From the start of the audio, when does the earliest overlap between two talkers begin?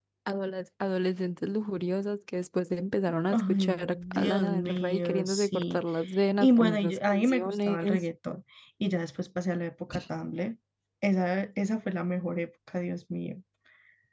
3.3 s

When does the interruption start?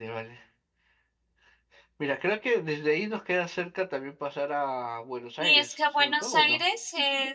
5.4 s

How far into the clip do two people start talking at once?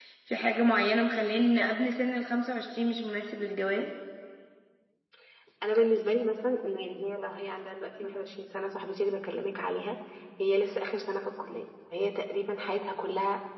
none

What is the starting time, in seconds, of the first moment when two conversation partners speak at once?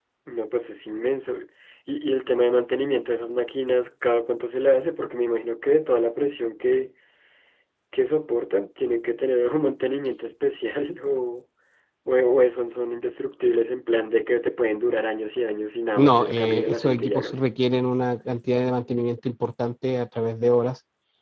16.0 s

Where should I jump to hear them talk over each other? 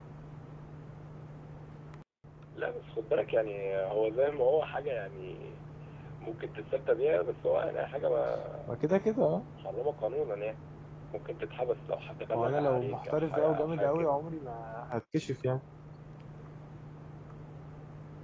12.3 s

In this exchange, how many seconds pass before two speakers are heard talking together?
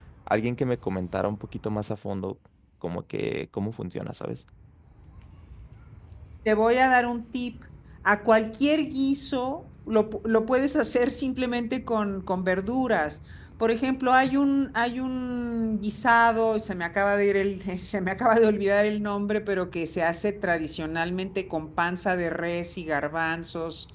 none

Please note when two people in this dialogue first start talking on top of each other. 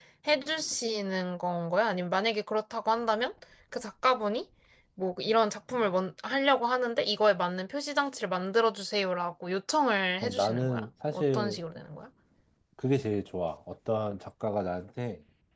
10.2 s

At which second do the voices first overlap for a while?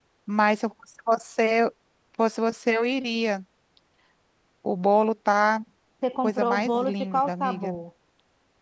6.2 s

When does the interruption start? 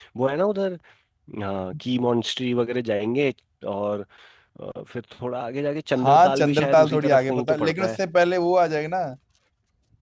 6.0 s

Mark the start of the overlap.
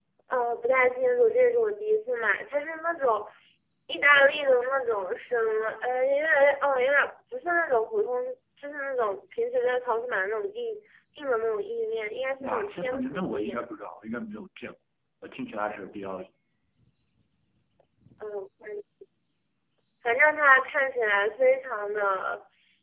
12.4 s

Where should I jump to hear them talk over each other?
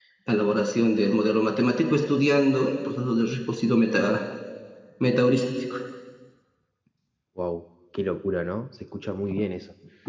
none

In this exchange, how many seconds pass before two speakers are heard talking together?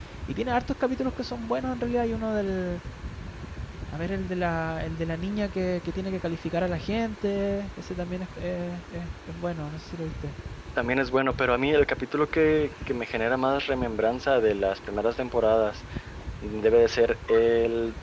none

